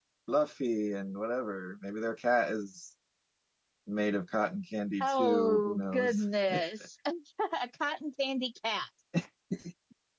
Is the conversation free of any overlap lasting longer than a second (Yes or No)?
No